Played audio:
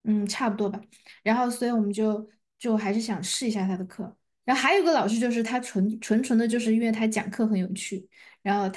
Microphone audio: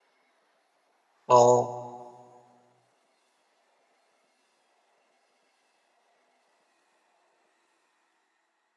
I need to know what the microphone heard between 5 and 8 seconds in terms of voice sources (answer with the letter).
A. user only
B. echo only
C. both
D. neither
D